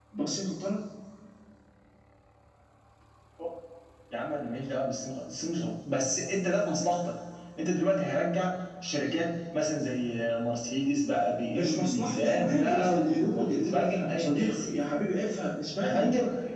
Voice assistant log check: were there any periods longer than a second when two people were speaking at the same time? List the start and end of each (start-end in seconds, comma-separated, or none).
11.5-14.7